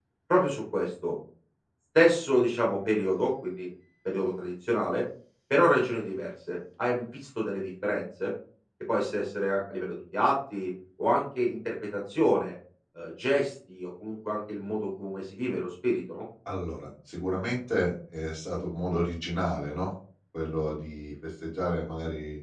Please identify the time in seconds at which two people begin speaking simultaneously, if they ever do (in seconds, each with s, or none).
none